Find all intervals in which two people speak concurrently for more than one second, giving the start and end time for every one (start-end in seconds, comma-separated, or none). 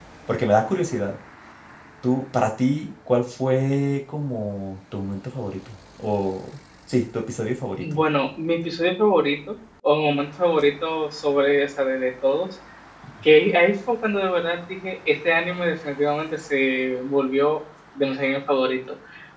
none